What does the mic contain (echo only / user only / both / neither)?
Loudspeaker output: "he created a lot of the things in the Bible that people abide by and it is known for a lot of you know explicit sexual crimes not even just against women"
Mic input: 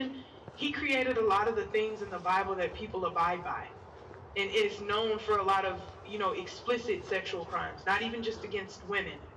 echo only